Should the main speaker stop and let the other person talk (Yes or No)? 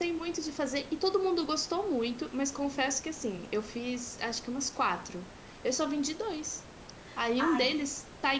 No